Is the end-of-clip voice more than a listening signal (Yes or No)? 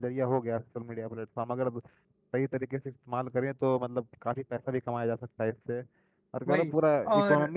No